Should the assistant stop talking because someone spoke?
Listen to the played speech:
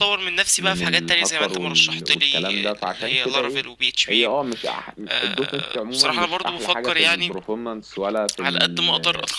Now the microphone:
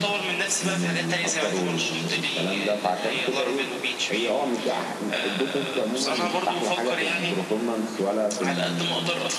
No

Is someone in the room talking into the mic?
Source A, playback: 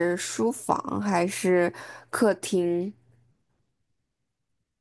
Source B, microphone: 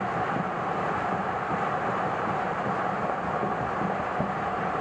No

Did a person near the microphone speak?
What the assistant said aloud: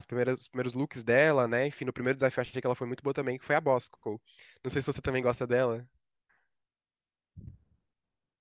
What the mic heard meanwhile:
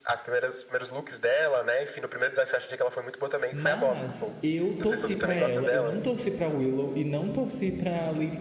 Yes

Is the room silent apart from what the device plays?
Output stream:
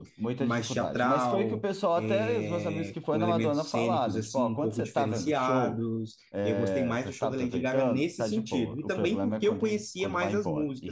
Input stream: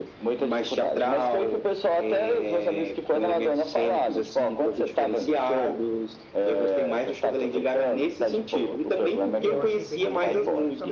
No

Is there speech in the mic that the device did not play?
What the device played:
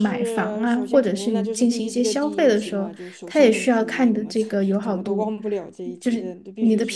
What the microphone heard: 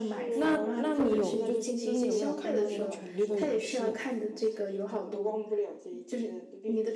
Yes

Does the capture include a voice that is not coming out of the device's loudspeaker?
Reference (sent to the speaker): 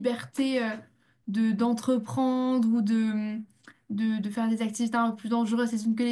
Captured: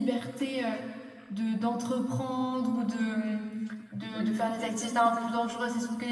Yes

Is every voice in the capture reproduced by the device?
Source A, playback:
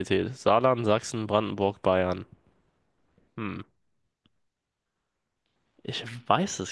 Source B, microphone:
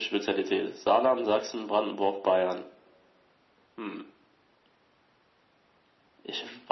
Yes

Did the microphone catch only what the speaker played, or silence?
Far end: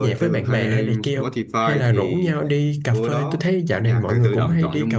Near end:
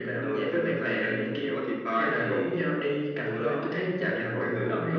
Yes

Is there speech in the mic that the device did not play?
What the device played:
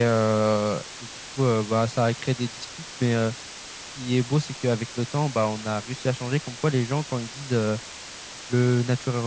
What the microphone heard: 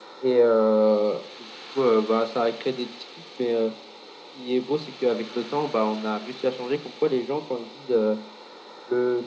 No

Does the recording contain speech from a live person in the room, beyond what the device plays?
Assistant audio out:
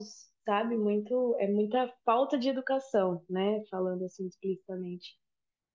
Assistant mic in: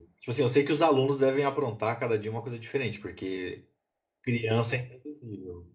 Yes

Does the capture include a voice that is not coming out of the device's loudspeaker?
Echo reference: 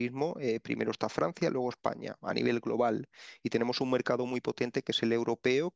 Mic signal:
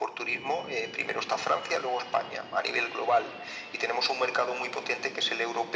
No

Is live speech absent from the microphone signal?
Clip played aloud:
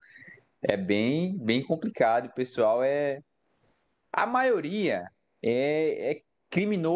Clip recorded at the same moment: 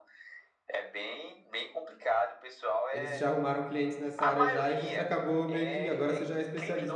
No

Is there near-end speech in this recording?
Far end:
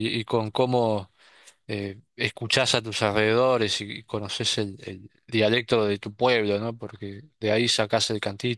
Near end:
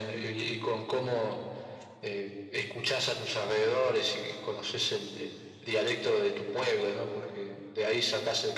No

